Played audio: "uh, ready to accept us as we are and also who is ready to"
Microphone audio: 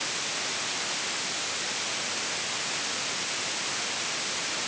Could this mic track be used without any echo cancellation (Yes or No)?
Yes